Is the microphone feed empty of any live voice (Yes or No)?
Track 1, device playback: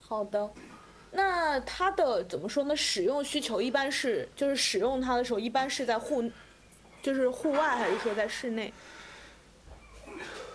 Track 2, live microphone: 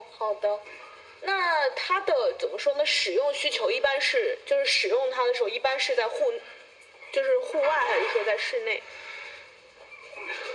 Yes